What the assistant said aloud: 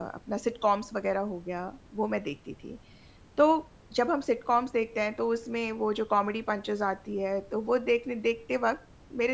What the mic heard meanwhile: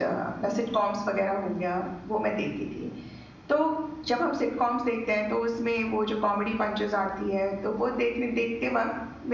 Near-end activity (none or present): none